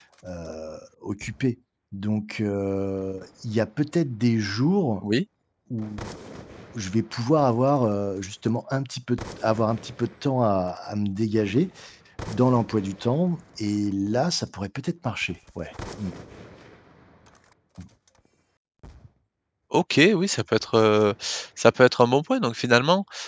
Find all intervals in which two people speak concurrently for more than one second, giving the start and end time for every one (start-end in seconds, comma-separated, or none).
none